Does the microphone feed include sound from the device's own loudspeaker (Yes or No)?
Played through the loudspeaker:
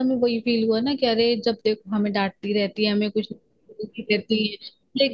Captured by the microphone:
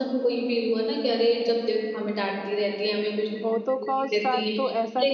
Yes